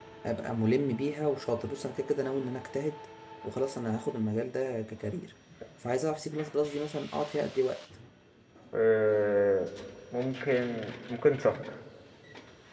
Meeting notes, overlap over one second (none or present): none